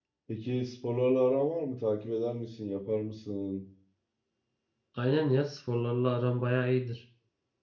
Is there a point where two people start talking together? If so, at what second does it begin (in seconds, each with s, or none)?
none